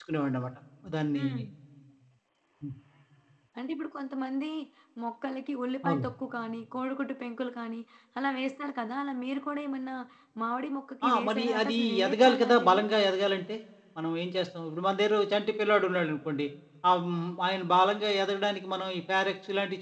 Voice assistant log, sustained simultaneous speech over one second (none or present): present